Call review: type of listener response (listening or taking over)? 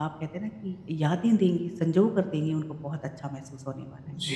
taking over